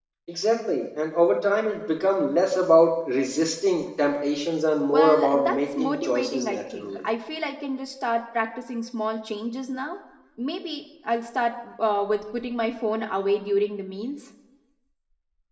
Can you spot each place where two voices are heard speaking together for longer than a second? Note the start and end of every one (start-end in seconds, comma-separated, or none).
4.9-7.0